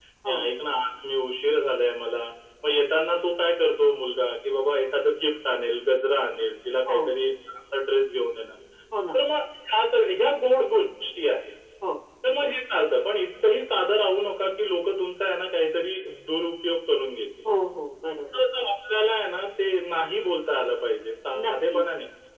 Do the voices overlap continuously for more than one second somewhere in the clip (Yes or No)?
No